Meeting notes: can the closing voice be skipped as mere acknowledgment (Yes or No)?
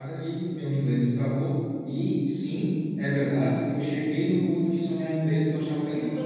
No